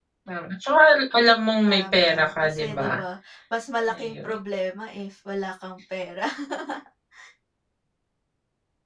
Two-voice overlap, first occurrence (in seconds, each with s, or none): 1.7 s